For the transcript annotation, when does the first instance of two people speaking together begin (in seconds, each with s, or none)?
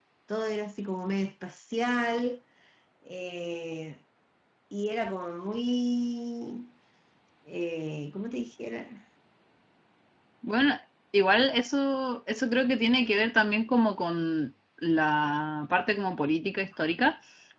none